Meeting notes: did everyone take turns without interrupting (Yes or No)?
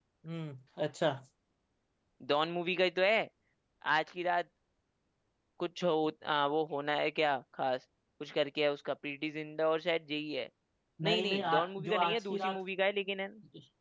No